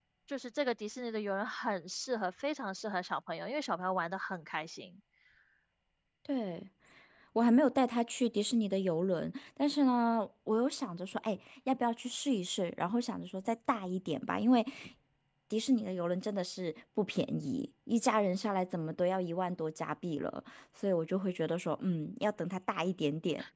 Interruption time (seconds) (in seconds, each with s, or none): none